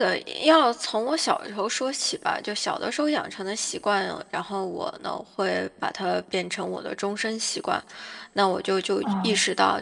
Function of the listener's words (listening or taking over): listening